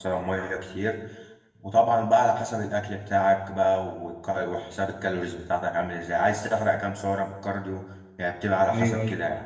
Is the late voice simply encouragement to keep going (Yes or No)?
No